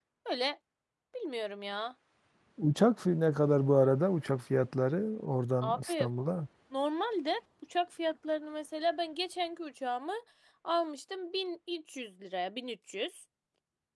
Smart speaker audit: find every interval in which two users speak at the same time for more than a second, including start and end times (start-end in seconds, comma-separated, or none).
none